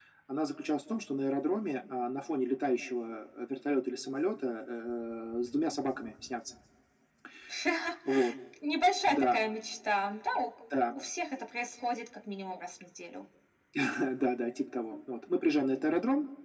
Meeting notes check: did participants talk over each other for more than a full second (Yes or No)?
No